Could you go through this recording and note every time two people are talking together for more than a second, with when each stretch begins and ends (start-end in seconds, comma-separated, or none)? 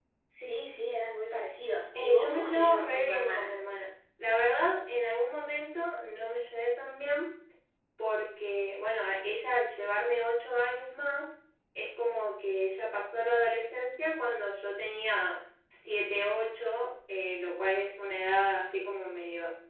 2.0-3.5